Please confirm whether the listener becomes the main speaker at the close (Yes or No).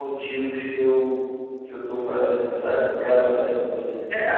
Yes